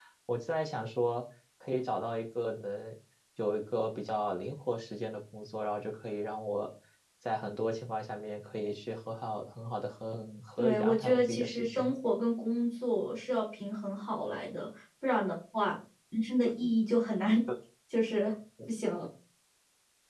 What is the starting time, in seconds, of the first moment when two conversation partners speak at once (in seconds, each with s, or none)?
10.6 s